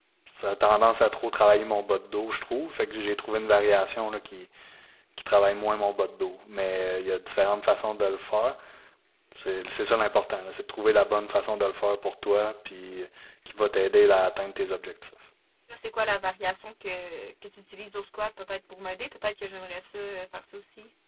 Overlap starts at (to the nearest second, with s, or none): none